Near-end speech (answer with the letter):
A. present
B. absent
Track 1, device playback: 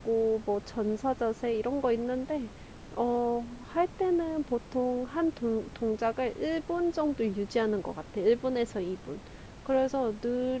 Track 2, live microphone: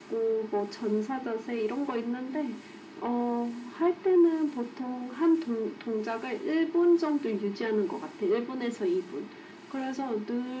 B